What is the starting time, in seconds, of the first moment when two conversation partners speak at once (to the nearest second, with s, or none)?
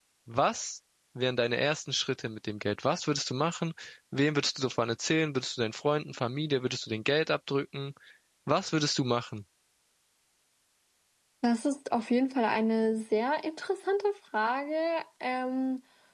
none